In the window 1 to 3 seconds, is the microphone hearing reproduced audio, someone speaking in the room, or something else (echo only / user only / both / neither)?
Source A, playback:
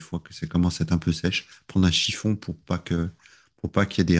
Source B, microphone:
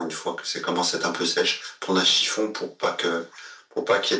echo only